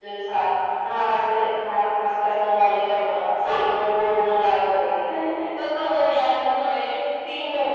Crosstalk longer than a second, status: none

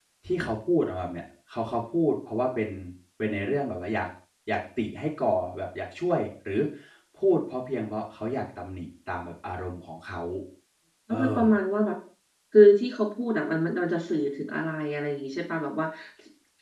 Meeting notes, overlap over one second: none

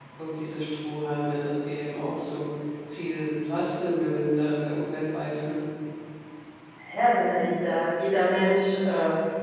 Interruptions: none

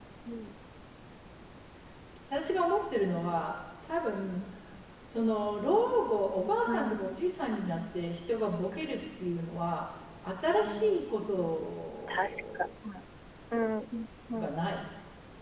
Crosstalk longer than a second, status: none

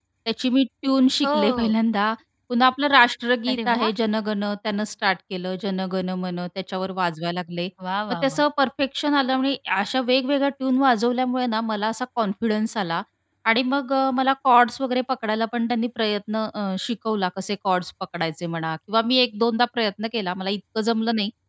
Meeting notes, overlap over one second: none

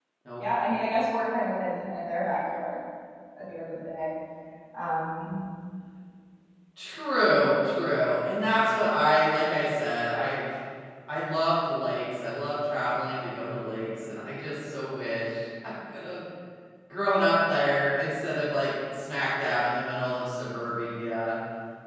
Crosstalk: none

